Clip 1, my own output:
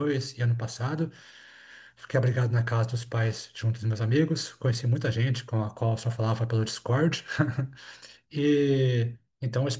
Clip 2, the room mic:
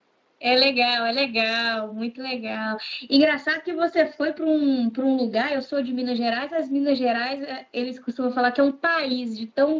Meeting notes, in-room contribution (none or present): present